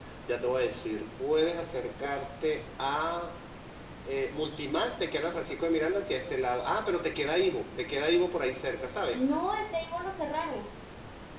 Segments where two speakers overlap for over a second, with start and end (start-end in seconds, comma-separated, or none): none